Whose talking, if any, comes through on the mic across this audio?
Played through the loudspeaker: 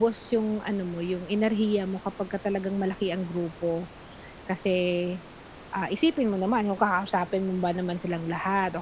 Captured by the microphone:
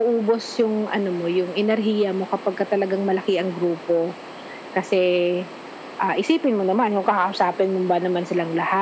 echo only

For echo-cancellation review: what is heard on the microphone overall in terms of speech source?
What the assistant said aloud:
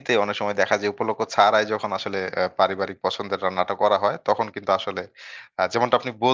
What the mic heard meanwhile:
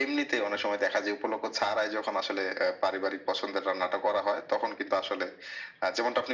echo only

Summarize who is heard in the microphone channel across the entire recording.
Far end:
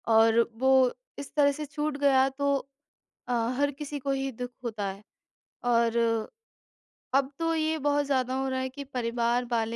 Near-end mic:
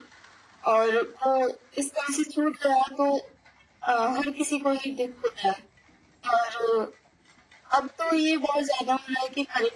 echo only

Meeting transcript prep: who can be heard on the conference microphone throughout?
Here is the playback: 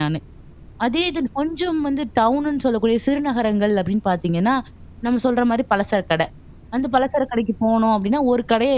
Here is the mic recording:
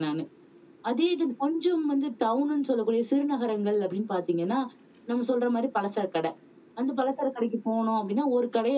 echo only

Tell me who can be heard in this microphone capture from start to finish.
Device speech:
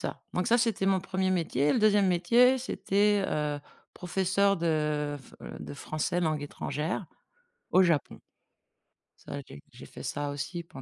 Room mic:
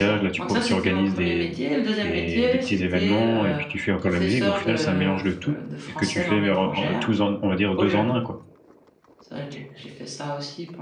both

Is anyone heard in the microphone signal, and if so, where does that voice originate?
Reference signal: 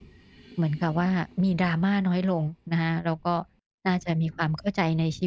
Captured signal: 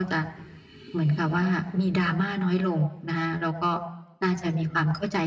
echo only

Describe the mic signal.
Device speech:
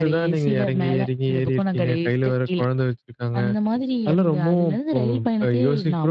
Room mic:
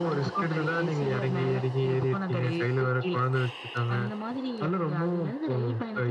echo only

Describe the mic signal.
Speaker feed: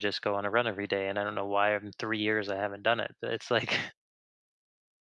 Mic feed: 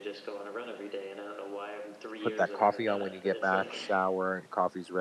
both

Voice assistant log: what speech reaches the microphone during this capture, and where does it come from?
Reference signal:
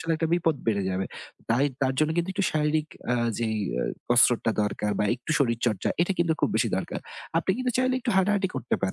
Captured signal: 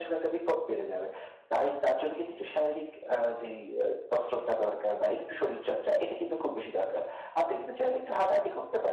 echo only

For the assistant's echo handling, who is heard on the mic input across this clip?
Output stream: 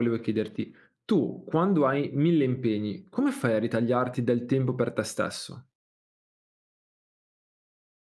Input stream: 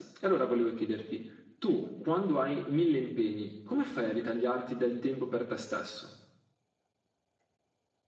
echo only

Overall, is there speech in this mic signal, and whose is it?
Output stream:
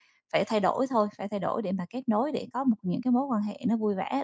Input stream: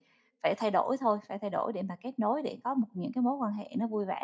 echo only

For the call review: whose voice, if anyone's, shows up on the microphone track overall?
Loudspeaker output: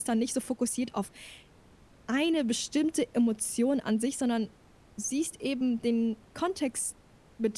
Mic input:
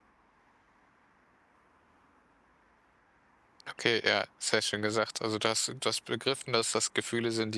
user only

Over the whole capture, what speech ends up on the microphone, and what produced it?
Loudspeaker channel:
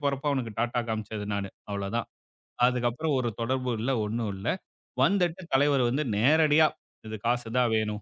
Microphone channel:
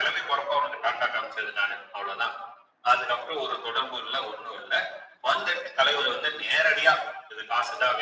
echo only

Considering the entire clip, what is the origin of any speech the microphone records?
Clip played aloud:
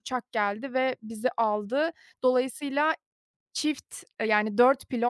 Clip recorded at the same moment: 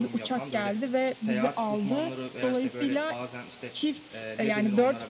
both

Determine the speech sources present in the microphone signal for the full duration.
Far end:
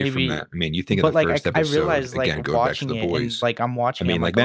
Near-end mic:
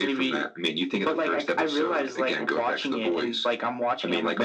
echo only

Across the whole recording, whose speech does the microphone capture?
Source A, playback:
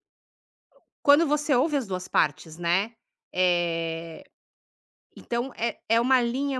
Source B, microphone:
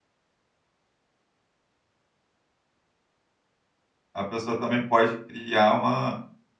user only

